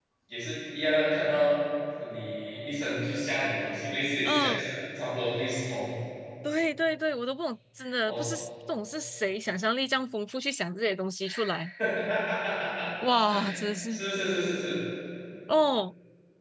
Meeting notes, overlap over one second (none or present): none